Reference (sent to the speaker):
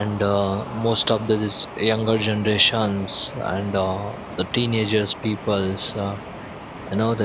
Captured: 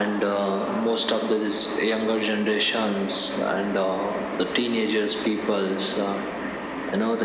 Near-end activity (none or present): none